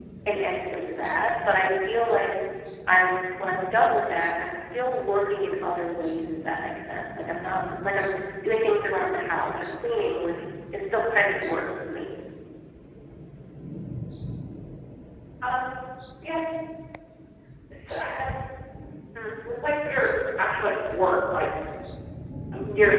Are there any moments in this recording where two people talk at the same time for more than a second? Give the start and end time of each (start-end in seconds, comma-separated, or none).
none